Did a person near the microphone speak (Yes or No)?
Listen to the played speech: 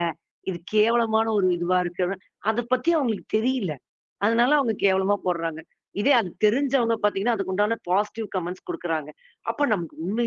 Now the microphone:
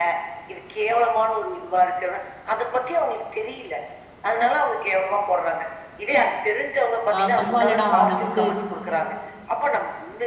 Yes